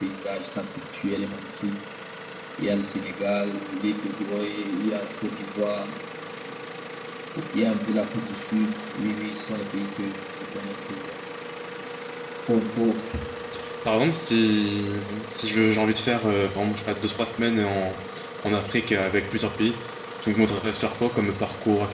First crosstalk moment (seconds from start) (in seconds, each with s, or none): none